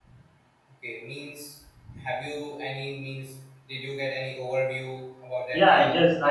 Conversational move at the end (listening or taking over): taking over